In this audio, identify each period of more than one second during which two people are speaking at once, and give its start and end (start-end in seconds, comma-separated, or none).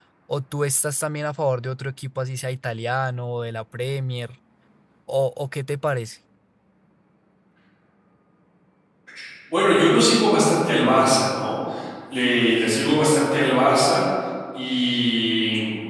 none